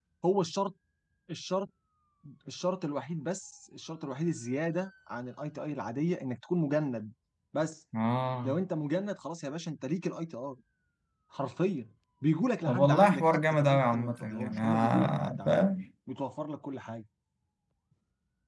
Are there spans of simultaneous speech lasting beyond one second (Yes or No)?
Yes